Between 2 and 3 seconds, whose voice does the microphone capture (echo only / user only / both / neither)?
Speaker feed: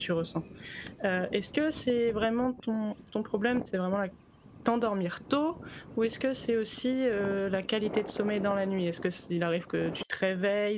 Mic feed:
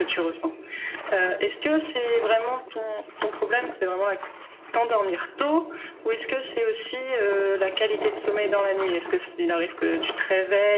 echo only